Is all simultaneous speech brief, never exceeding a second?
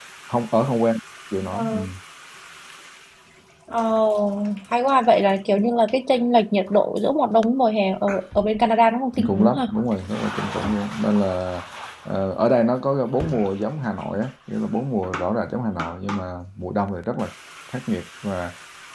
Yes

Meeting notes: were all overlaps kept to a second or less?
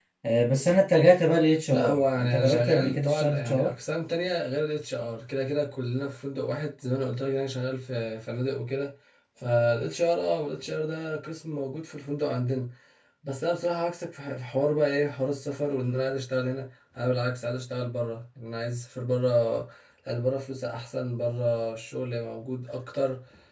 No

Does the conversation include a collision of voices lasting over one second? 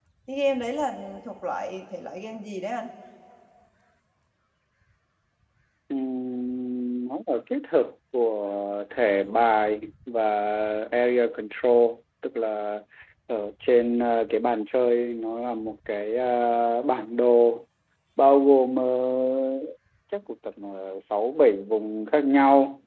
No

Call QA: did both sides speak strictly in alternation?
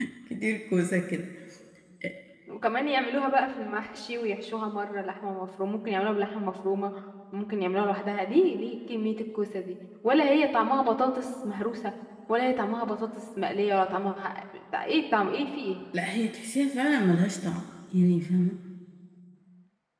Yes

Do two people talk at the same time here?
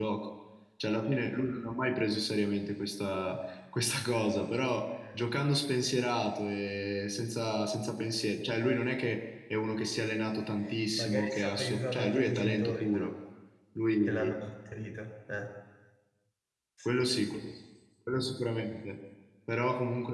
Yes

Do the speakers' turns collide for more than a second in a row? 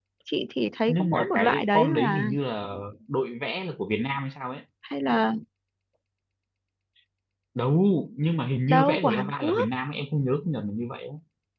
Yes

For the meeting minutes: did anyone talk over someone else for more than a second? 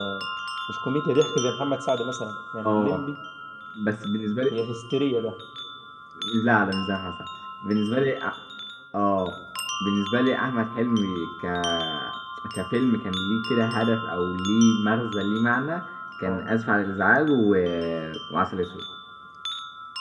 No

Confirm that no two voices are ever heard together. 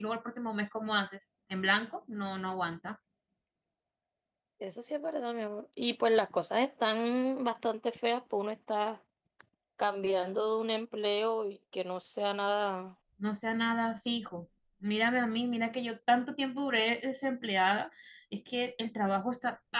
Yes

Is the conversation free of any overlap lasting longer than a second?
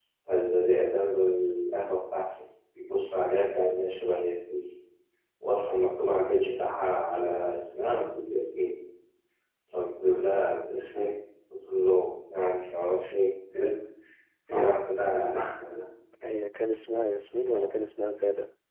Yes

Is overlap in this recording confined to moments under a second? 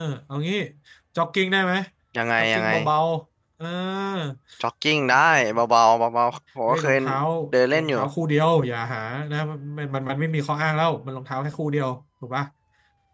Yes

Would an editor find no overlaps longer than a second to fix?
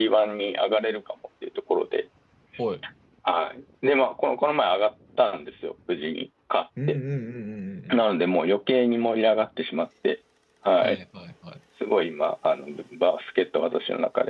Yes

